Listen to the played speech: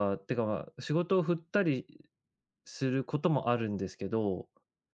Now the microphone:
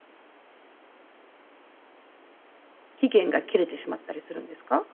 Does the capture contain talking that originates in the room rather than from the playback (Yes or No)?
Yes